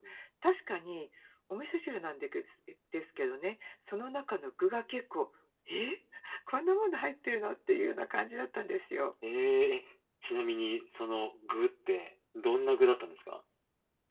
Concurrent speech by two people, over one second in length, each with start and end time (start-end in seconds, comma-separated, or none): none